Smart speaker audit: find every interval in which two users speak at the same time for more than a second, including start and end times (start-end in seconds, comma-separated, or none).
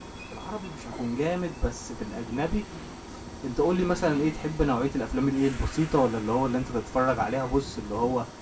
none